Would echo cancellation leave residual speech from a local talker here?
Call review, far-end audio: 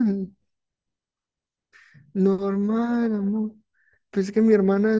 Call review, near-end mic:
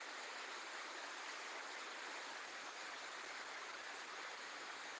No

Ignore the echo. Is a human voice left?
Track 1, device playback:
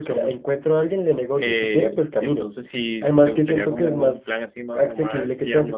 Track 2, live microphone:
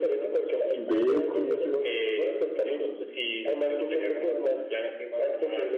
Yes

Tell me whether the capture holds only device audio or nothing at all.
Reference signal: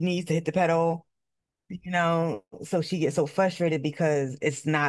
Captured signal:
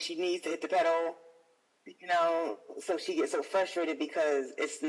Yes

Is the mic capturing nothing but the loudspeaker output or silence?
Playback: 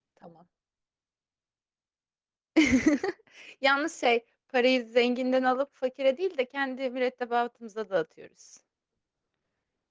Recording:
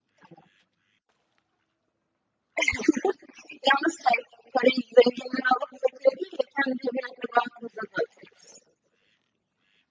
Yes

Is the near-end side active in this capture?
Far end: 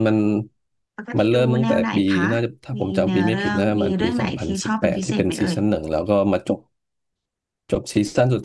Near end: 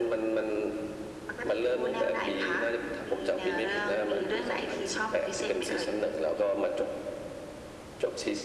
No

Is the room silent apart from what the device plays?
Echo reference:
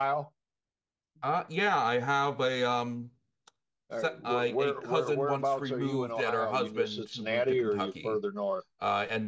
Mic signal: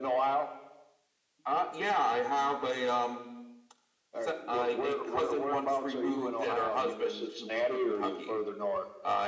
Yes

